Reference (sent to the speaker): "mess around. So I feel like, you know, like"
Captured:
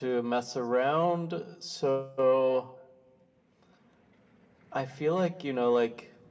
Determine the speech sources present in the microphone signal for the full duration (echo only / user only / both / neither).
echo only